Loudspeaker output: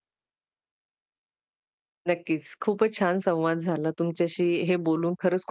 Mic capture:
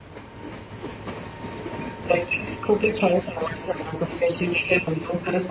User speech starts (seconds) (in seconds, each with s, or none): none